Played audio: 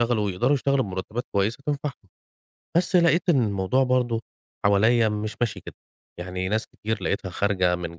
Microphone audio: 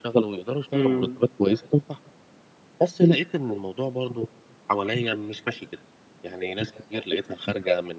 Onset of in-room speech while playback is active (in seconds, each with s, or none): 0.8 s